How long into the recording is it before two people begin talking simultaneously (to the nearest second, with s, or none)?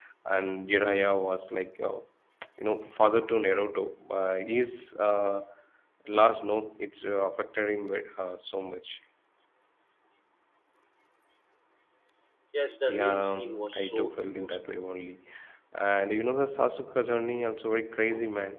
13 s